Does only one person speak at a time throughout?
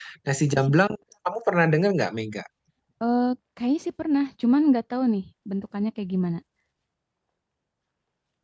Yes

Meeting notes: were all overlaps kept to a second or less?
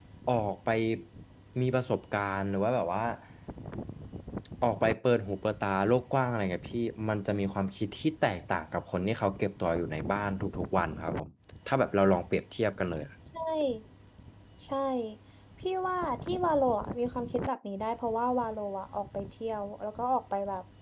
Yes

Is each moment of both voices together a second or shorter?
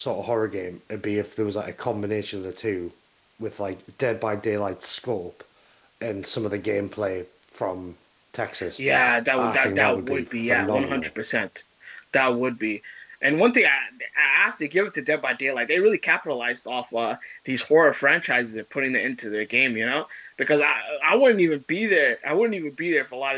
No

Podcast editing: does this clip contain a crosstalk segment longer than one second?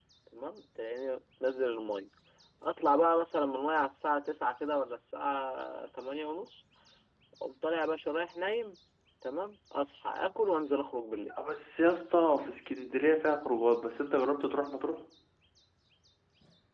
No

